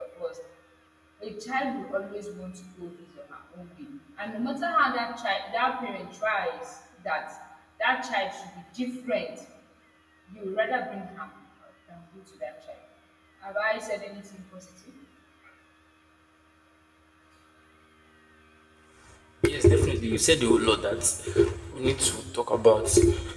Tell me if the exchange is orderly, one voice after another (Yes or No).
Yes